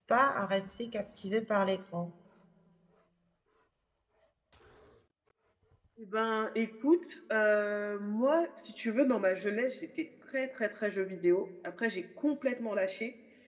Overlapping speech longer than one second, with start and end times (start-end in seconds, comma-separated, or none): none